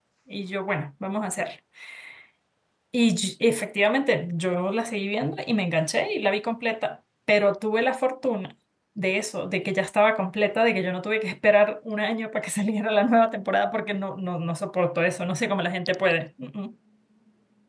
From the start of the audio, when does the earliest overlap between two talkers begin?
none

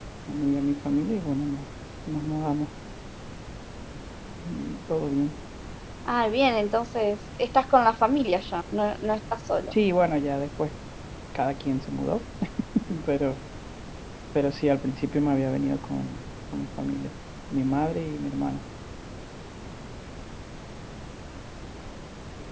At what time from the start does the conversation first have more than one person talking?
none

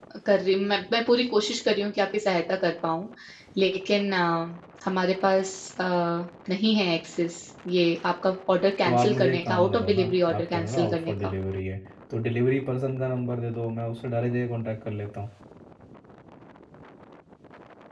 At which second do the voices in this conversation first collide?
8.8 s

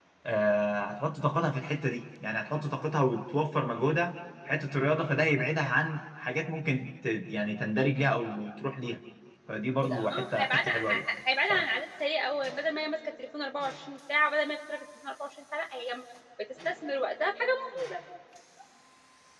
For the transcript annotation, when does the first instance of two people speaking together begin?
9.8 s

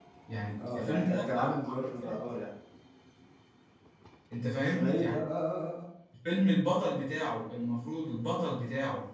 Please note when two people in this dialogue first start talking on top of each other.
0.7 s

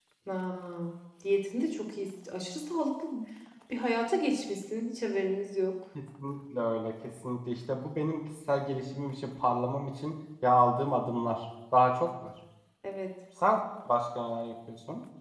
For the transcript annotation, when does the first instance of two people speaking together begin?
none

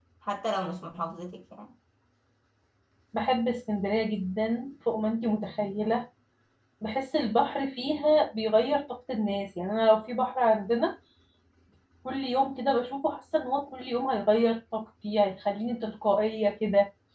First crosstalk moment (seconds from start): none

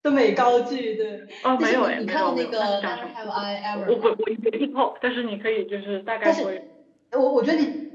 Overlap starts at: 1.6 s

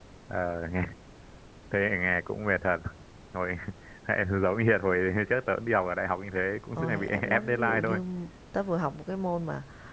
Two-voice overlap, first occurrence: 6.8 s

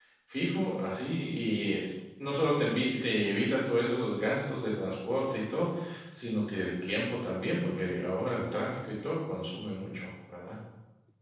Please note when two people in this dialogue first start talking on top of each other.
none

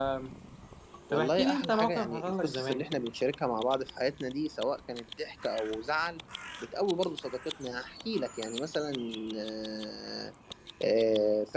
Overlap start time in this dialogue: 1.1 s

